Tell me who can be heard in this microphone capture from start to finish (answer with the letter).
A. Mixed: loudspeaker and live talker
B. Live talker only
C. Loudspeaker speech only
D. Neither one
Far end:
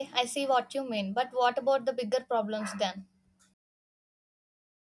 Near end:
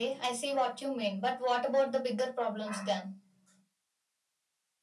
C